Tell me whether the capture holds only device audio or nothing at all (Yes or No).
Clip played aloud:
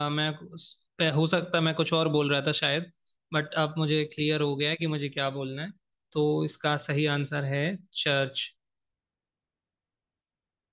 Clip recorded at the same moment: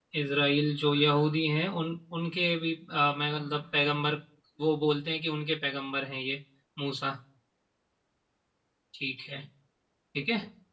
No